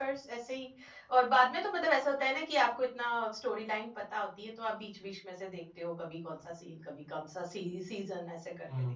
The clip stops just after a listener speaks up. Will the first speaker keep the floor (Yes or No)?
No